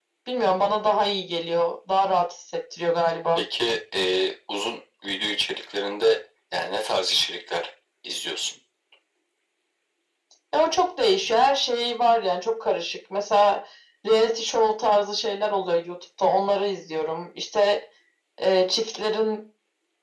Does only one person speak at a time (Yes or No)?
Yes